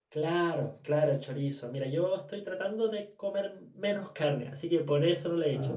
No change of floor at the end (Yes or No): Yes